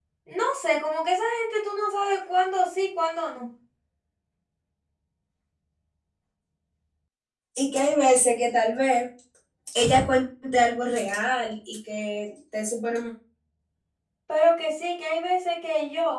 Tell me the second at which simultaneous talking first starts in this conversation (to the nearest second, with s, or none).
none